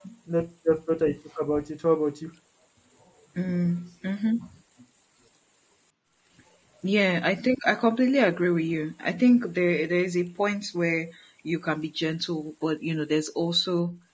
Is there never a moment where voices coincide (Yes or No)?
Yes